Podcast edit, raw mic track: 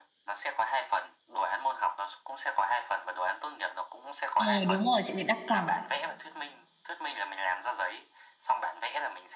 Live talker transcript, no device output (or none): ờ đúng rồi chị thì đặc sản